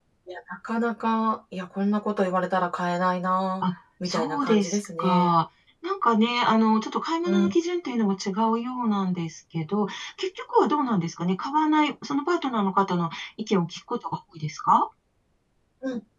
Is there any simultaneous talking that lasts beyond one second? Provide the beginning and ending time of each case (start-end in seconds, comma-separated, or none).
4.0-5.3